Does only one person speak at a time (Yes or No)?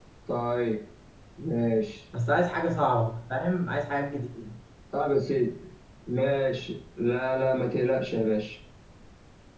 Yes